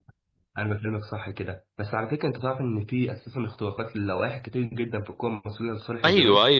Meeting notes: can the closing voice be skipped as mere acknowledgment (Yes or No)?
No